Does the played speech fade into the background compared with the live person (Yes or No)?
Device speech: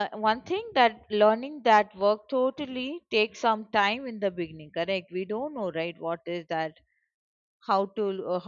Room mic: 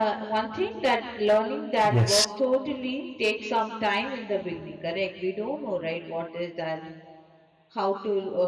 Yes